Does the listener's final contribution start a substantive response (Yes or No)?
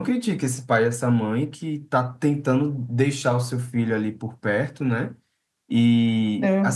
No